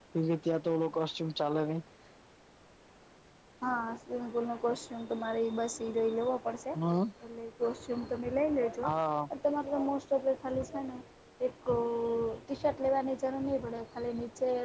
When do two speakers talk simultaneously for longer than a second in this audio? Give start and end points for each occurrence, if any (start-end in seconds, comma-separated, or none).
none